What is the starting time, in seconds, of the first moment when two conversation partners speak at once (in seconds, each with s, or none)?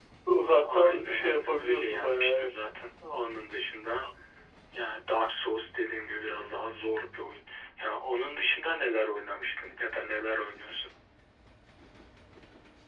0.5 s